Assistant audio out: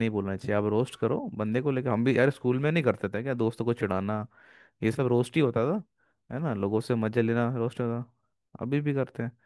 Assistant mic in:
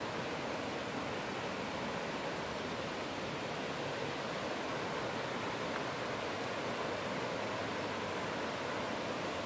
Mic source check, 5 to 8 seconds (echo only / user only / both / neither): neither